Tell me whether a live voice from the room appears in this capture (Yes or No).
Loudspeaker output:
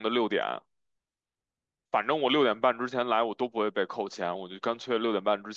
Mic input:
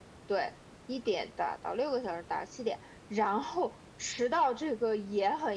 Yes